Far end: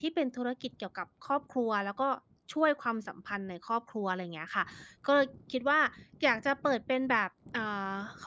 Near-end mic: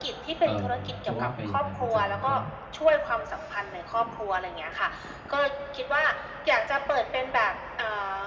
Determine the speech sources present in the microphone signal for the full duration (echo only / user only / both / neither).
both